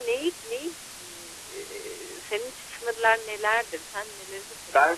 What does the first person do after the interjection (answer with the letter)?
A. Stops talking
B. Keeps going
A